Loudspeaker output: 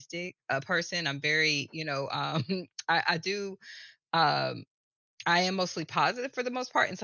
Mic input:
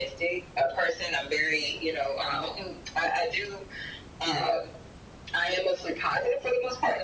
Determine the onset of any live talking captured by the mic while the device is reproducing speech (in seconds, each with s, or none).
none